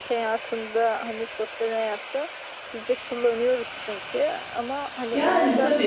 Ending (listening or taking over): taking over